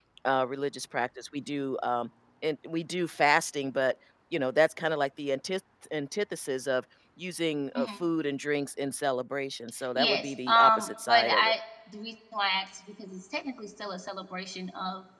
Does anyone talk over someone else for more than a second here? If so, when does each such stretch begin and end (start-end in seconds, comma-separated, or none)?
10.0-11.5